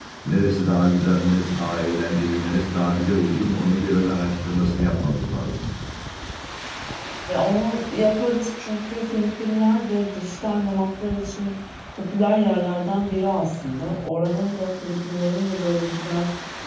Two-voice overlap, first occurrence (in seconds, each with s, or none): none